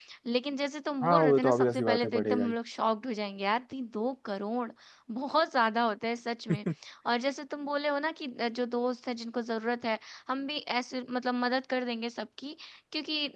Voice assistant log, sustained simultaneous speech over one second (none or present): present